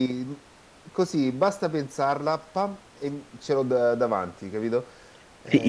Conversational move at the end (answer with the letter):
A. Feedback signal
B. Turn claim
B